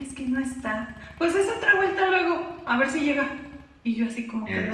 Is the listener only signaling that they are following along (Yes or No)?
Yes